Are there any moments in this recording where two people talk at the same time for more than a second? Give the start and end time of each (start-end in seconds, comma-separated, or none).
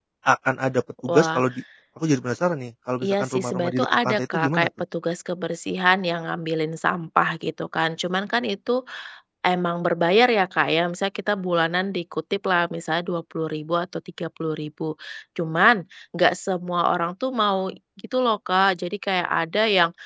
3.0-4.7